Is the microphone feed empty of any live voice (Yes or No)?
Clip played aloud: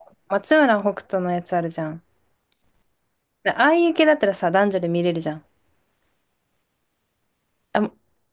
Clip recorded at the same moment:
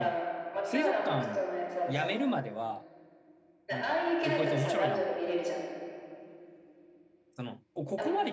No